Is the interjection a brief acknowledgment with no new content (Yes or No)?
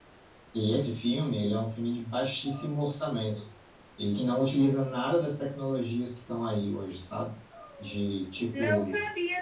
No